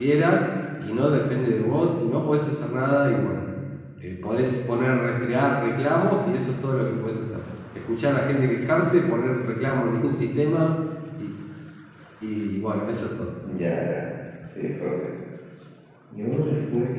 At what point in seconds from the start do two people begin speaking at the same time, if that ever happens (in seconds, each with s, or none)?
none